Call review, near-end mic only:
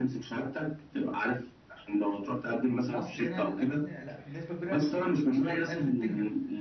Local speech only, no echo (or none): في مصر هنا الاكل لا بنسبه كبيره مشاريع الاكل بتنجح